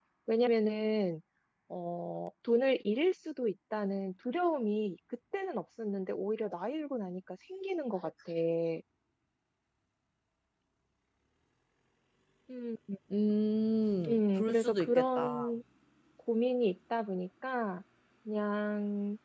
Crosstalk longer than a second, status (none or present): present